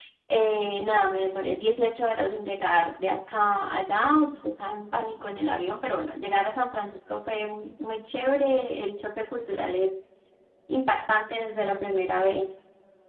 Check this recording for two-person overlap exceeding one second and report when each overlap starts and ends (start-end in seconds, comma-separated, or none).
none